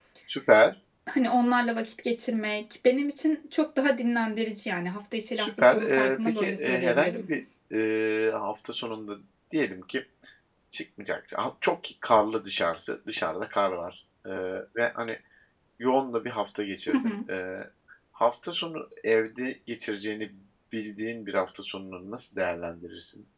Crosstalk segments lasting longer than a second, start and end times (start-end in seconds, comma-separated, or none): 5.3-7.3